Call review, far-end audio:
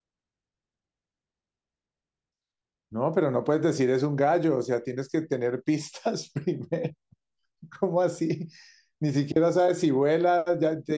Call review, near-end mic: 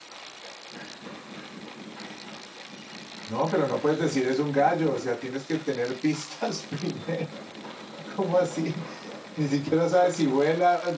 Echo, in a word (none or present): present